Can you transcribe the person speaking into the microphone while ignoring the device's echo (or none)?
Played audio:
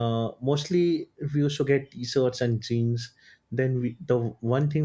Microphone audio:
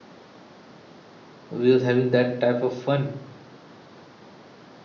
We was having that type of fun,